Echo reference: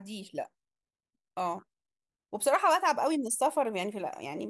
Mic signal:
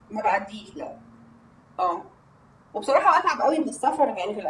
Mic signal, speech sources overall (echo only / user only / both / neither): echo only